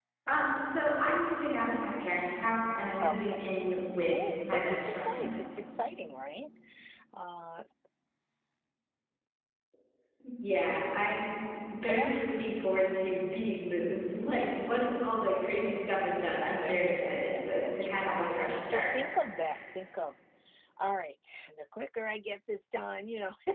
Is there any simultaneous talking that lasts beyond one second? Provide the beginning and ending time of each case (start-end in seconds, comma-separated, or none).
3.0-5.4, 16.6-18.9